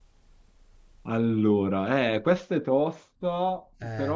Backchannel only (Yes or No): Yes